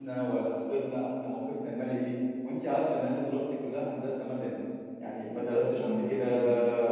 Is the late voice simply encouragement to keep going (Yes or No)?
Yes